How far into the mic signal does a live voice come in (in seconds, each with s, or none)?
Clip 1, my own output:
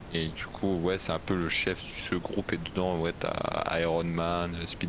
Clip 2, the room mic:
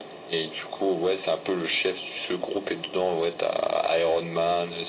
none